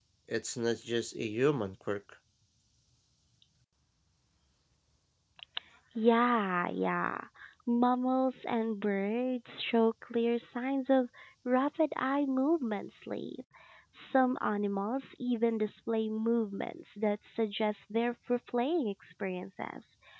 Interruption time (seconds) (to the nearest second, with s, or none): none